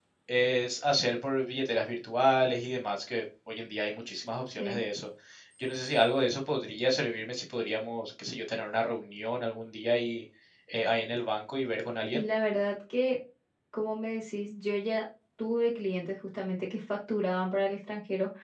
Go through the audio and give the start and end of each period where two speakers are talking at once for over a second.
none

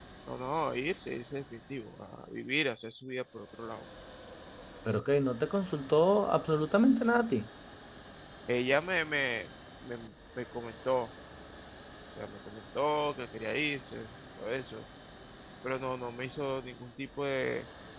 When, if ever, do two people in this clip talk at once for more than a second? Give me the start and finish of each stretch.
none

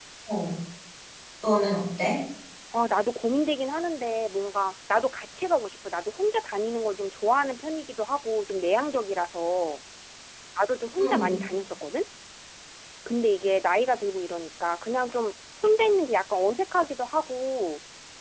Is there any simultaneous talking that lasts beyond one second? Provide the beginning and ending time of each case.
none

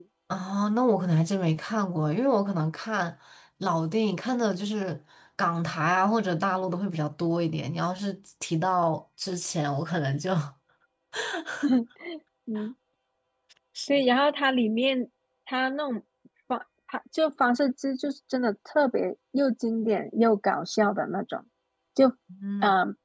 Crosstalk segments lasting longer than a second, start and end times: none

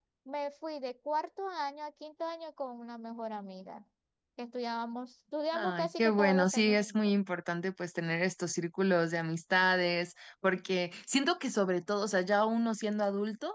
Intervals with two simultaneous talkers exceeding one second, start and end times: 5.5-7.1

